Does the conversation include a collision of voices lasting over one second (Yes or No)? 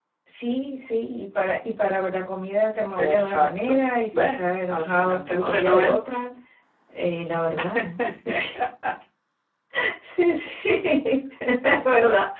Yes